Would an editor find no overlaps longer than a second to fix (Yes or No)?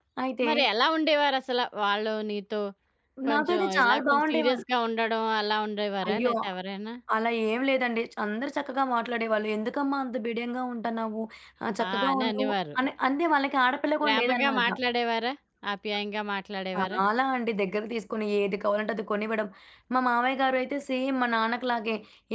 No